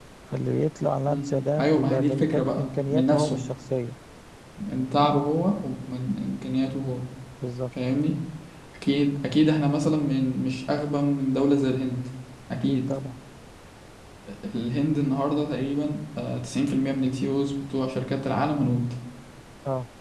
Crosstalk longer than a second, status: present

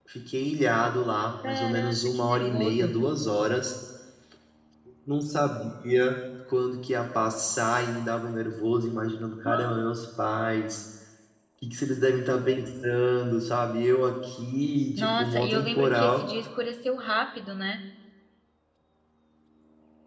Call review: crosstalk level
present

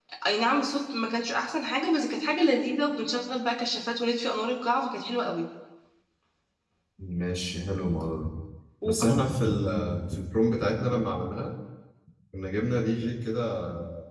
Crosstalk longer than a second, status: none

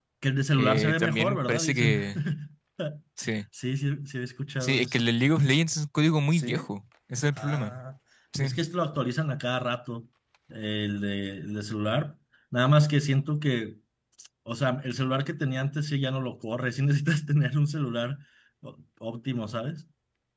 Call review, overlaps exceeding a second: present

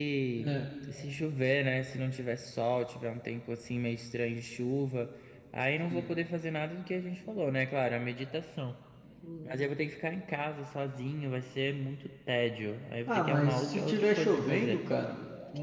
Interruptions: present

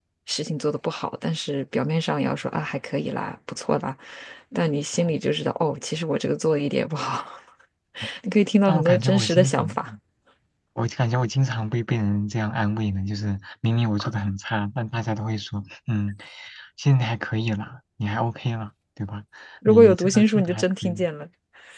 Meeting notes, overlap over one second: present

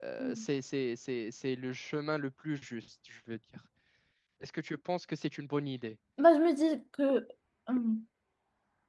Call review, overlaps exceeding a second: none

